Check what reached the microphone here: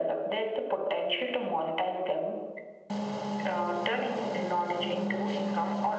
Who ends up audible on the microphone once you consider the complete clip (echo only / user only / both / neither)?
echo only